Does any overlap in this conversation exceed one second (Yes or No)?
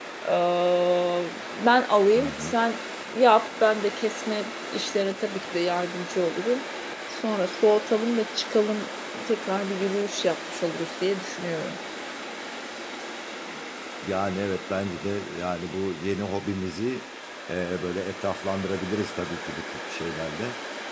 No